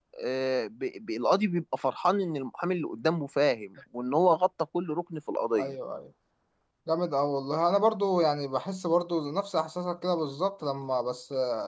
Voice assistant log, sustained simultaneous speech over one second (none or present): none